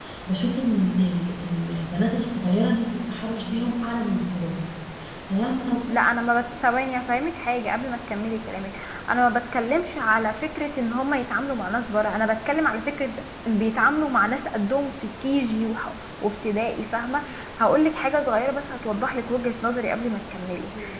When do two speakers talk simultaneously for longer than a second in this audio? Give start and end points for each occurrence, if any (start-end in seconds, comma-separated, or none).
none